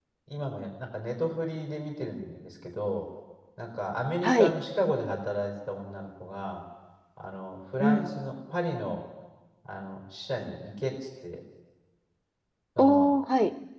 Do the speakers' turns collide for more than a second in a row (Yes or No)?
No